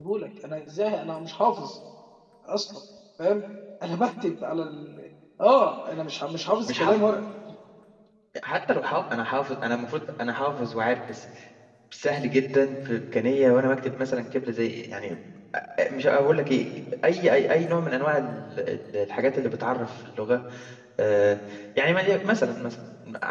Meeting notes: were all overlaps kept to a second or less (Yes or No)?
Yes